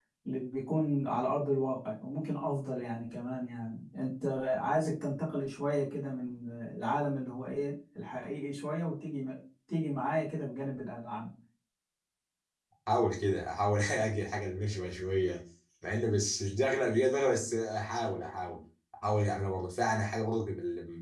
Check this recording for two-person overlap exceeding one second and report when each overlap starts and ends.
none

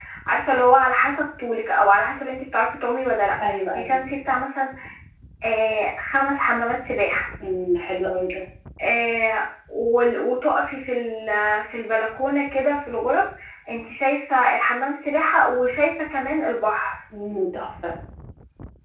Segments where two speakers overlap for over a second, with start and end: none

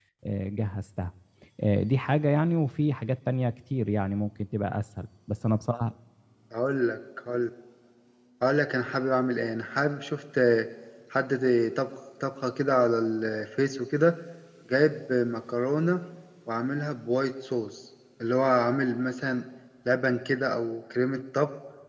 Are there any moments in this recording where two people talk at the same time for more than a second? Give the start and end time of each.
none

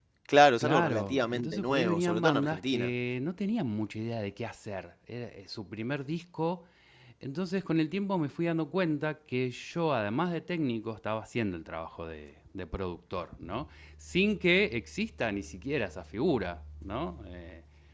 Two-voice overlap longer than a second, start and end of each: 0.6-2.9

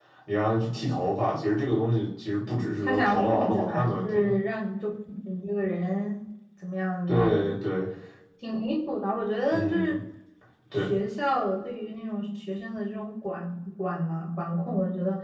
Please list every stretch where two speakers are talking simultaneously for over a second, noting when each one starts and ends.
2.8-4.3

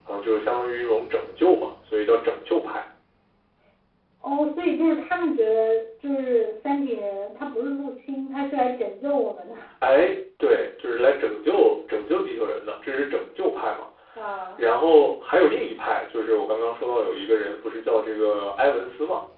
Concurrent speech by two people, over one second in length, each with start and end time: none

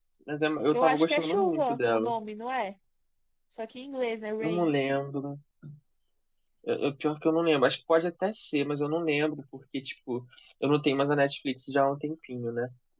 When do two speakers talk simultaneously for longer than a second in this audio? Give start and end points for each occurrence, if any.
0.7-2.1

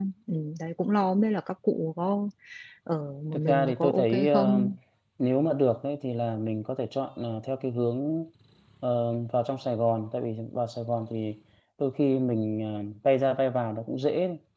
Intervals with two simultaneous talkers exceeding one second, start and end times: 3.3-4.6

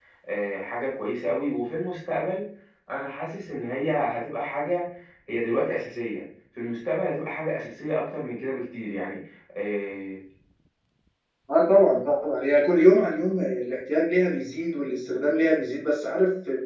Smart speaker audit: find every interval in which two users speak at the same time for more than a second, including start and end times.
none

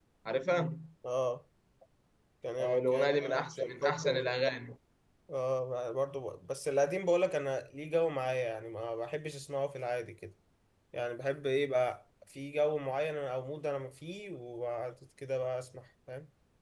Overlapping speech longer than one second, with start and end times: 2.6-4.1

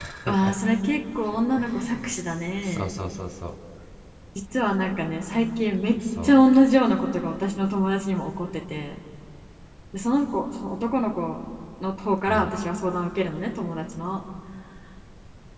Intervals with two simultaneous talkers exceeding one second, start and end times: none

